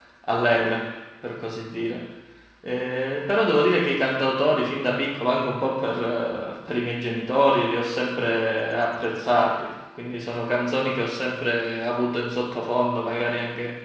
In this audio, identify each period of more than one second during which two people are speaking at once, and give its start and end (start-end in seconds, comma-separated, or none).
none